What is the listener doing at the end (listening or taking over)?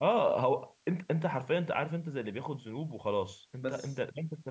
listening